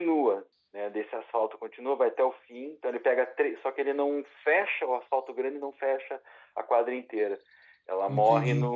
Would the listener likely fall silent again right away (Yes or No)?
Yes